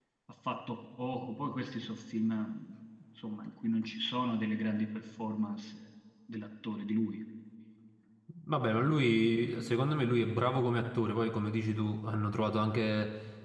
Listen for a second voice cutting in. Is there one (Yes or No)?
No